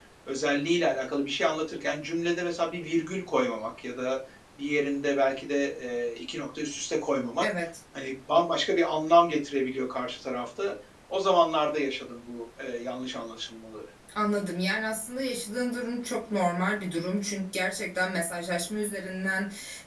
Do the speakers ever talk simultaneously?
No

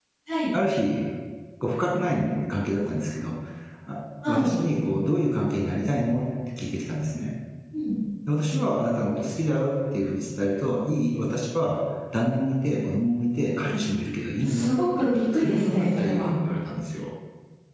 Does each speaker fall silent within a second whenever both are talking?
No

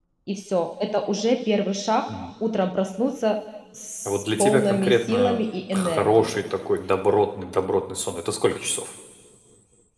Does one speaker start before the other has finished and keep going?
Yes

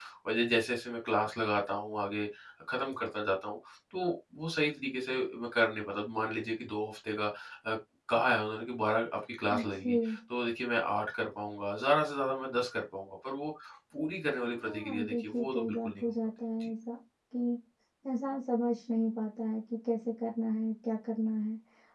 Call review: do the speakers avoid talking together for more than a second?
No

